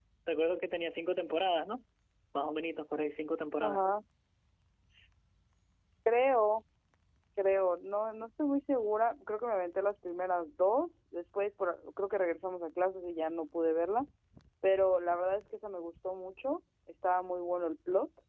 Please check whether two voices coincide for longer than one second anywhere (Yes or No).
No